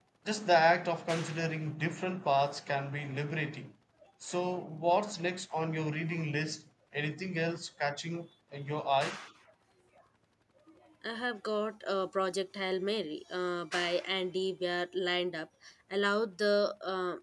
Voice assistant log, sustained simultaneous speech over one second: none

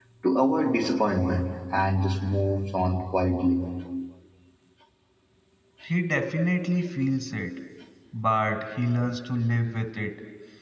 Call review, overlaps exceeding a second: none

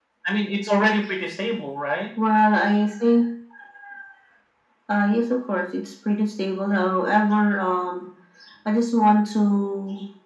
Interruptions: none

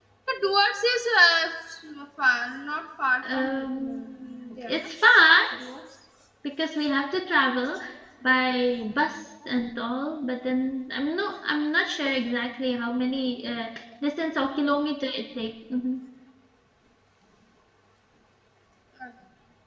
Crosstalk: present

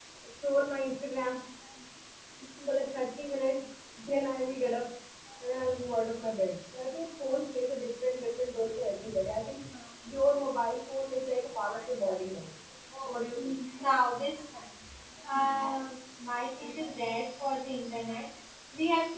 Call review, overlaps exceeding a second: none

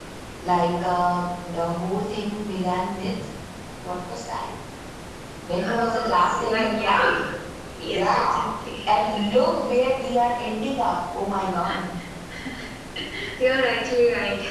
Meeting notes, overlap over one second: present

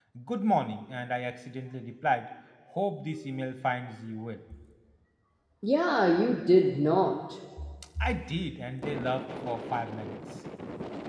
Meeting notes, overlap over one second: none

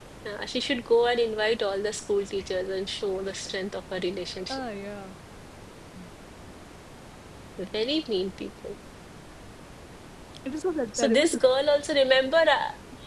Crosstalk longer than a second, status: none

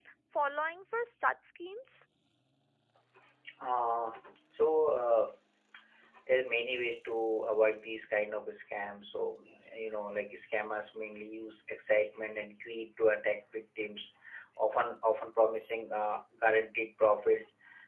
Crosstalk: none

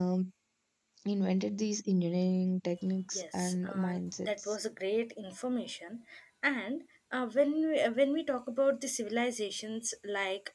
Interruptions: present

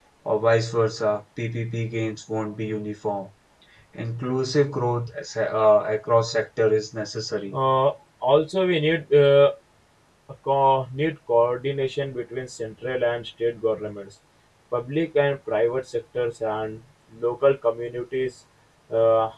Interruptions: none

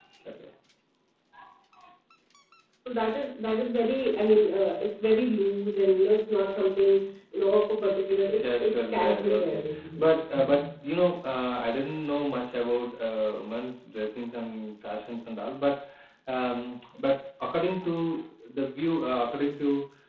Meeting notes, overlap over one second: present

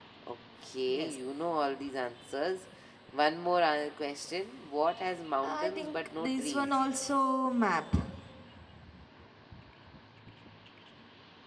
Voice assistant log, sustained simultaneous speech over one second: present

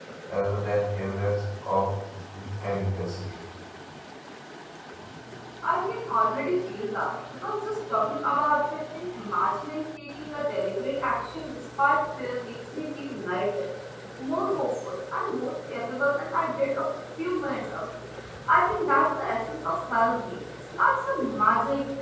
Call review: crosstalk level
none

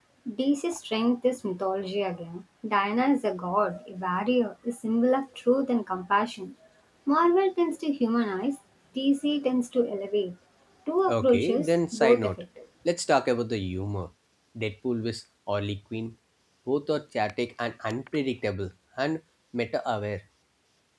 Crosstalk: present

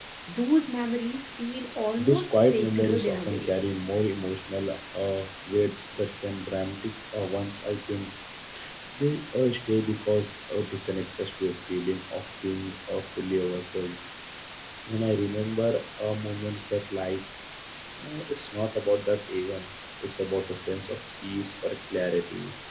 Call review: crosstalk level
present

